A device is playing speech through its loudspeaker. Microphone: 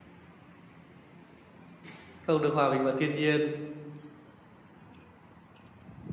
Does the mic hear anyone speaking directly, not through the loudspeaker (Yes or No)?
Yes